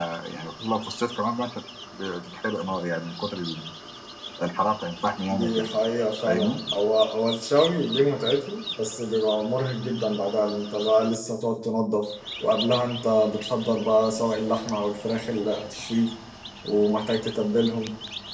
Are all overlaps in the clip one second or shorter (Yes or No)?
Yes